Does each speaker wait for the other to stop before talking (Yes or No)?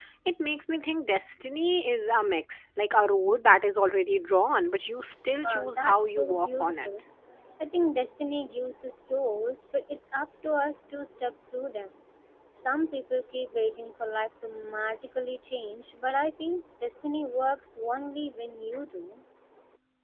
No